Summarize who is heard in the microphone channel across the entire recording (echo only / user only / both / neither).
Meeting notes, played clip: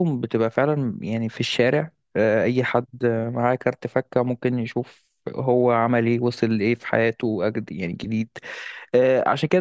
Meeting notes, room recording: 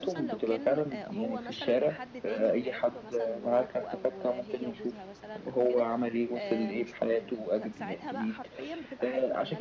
both